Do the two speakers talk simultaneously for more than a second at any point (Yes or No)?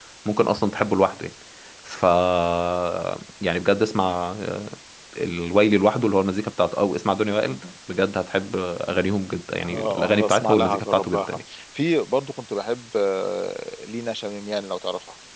Yes